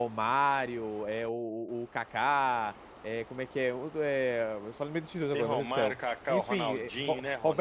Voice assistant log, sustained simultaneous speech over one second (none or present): present